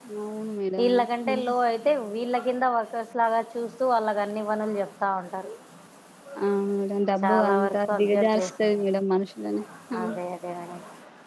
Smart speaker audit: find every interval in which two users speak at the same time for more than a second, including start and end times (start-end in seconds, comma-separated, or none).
7.2-8.7